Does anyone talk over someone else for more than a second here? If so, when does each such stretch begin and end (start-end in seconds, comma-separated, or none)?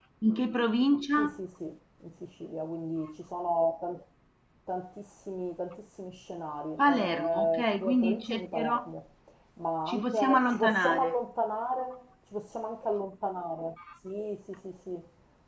6.8-8.9, 9.9-11.1